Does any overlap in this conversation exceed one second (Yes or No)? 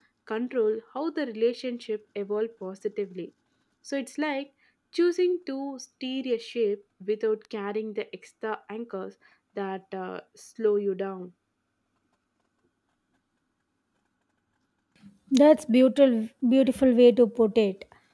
No